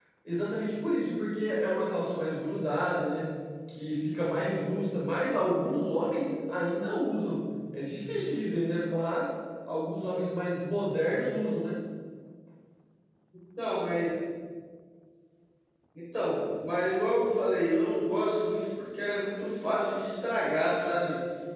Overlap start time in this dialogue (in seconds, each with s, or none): none